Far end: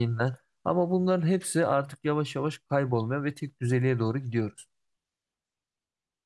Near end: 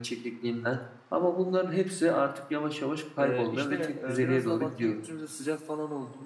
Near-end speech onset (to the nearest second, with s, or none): 3 s